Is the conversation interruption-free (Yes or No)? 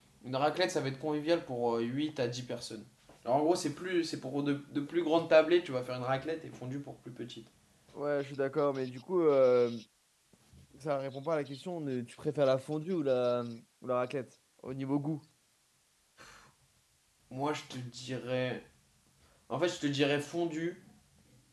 Yes